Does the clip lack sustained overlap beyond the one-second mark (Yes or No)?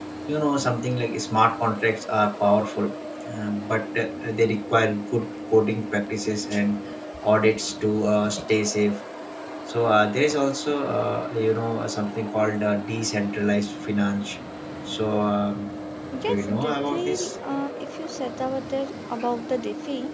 No